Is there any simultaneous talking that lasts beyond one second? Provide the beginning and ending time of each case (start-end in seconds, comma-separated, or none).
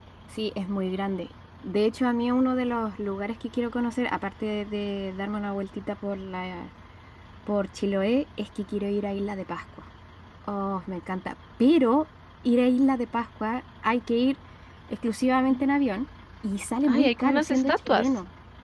16.8-18.1